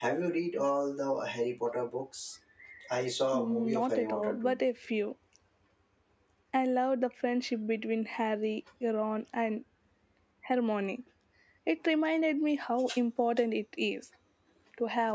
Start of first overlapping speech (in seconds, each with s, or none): 3.3 s